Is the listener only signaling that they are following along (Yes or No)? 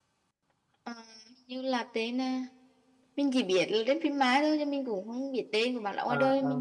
No